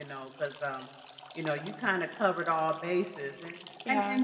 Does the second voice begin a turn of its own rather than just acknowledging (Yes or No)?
No